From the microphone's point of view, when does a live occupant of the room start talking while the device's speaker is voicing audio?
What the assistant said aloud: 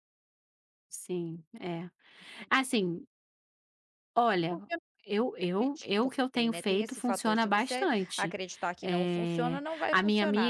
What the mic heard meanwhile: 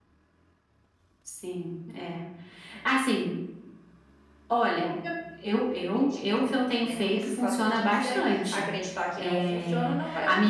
none

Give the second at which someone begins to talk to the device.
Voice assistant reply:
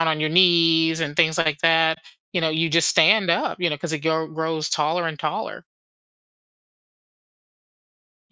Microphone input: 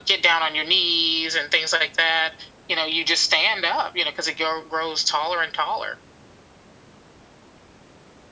none

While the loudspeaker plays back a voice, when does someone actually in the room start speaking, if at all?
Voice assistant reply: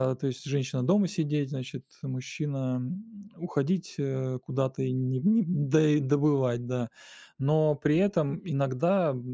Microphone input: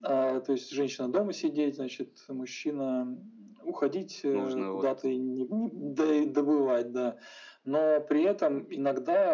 4.3 s

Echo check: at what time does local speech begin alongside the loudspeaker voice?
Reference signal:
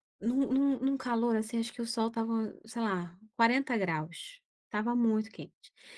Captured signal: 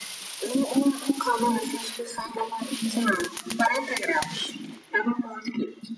none

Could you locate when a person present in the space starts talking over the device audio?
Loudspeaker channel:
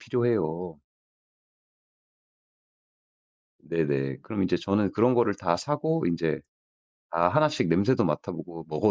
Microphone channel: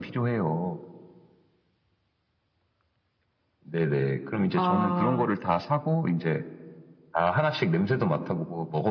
4.6 s

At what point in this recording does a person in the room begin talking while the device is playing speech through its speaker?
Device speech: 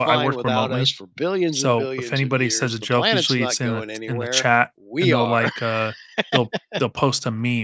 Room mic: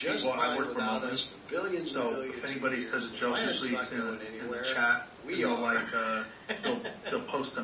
none

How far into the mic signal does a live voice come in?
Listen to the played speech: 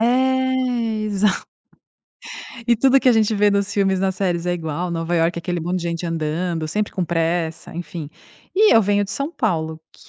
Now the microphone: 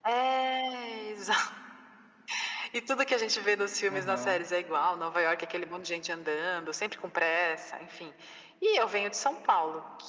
3.9 s

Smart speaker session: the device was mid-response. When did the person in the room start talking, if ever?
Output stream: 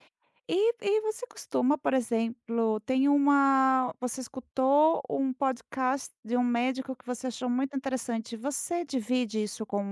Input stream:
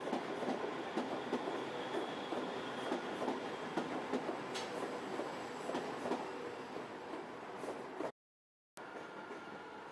none

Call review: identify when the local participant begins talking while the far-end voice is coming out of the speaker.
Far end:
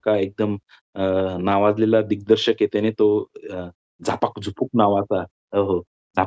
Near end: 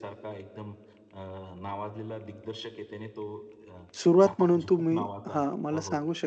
4.0 s

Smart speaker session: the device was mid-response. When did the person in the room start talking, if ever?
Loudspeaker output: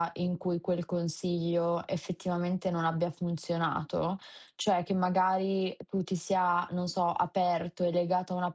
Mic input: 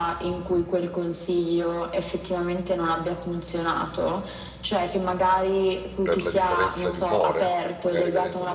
6.0 s

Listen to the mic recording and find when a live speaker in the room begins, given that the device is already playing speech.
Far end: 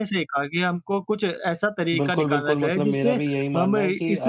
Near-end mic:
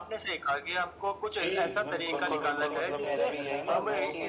1.3 s

